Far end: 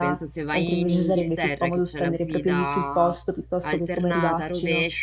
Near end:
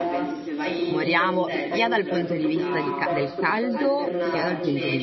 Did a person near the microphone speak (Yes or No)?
Yes